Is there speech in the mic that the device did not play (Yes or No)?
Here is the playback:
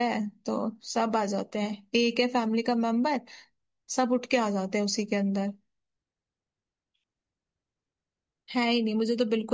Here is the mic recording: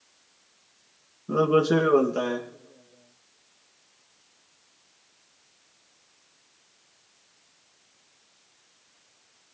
Yes